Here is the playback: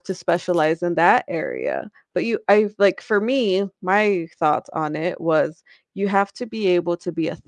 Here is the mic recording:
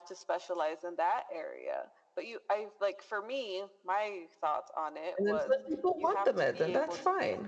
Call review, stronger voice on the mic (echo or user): user